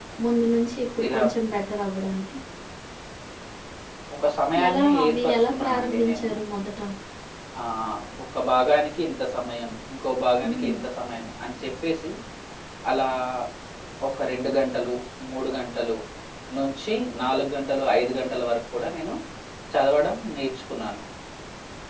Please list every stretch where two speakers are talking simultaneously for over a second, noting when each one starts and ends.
4.7-6.3

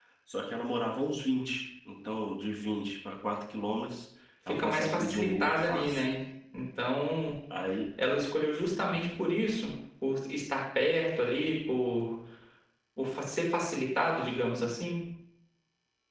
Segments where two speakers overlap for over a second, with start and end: 4.5-6.1

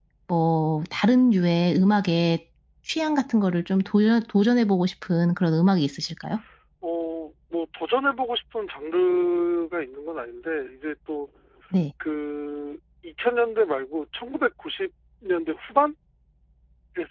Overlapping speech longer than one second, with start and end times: none

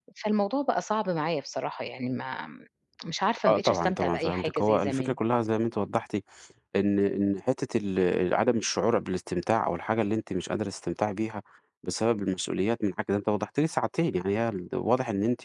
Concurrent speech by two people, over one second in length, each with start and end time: 3.5-5.2

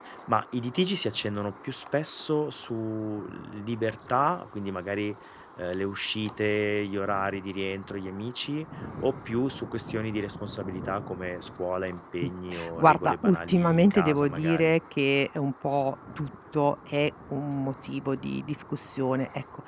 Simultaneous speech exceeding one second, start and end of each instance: 12.8-14.8

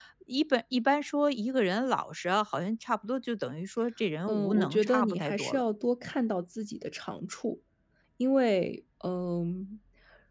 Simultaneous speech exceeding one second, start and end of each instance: 4.3-5.6

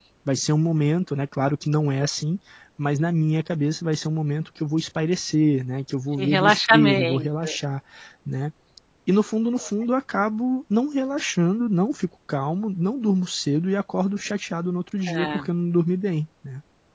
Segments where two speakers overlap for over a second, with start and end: 6.2-7.5

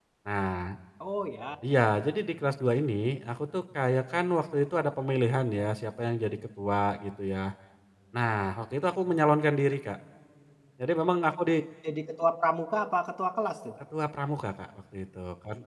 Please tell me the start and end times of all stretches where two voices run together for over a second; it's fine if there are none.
none

